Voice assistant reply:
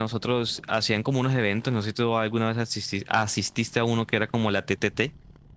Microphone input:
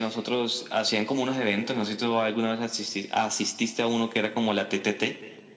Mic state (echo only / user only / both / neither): echo only